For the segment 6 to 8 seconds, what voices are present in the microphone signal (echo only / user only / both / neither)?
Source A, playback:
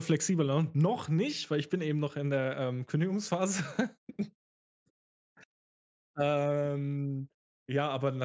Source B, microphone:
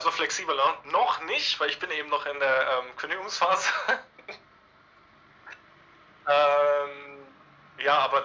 echo only